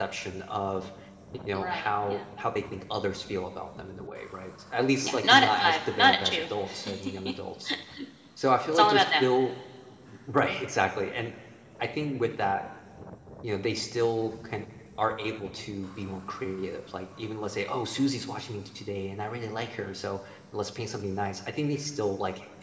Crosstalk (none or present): present